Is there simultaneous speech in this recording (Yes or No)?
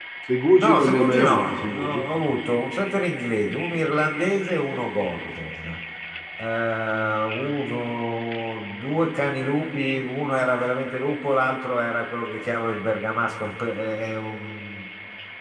Yes